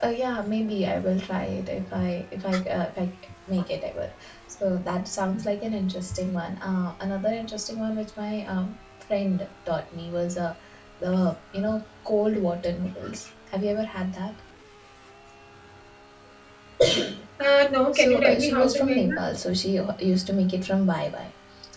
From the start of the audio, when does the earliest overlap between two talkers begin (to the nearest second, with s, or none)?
18 s